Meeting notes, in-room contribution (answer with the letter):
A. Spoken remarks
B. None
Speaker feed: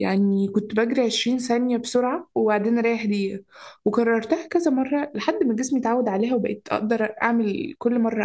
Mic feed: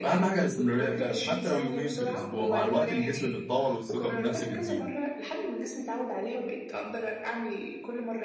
A